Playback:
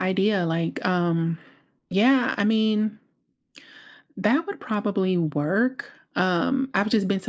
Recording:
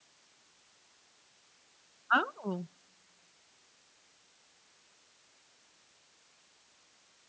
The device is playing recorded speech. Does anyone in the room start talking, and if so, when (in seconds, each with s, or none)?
2.1 s